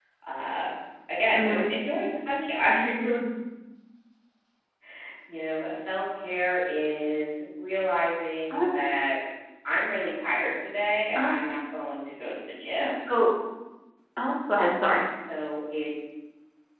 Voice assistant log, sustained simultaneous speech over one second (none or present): none